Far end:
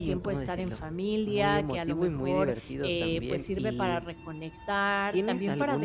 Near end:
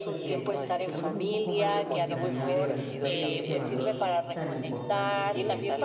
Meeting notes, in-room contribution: present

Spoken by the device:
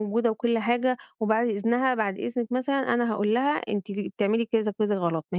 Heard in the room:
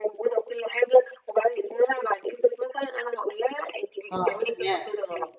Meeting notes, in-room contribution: present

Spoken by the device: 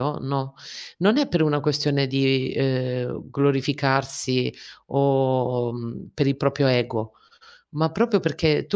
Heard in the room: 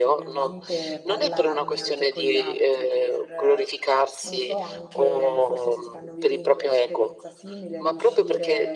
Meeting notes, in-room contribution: present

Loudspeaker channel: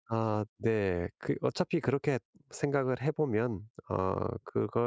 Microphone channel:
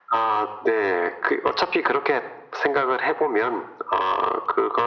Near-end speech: none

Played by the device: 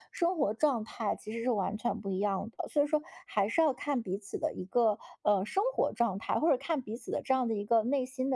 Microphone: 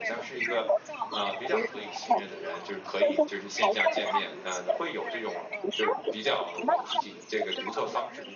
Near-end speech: present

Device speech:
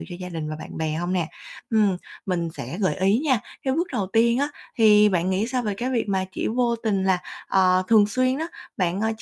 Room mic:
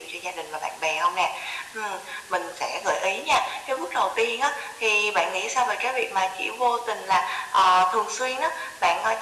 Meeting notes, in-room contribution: none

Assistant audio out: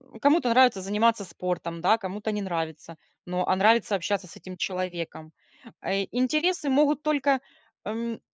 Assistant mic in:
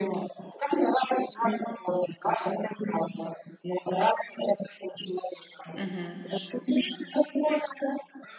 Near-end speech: present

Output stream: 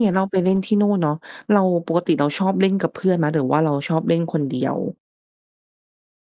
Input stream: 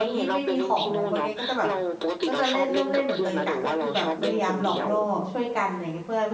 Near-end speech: present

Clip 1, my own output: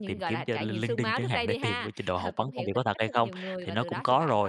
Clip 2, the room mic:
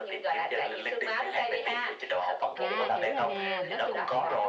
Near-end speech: present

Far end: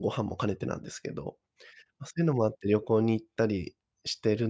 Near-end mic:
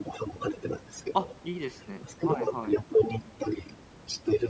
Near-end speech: present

